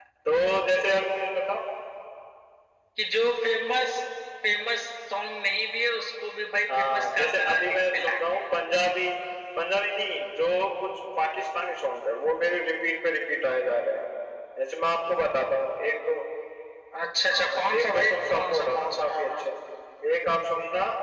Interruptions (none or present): present